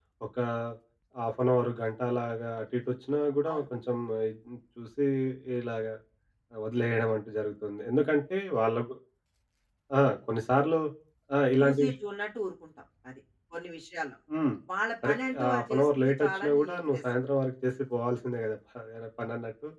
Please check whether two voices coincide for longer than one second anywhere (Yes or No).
Yes